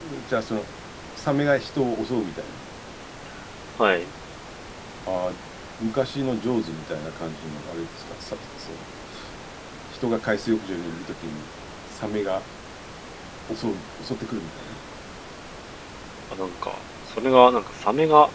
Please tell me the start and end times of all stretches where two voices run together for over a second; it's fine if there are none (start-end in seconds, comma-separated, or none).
none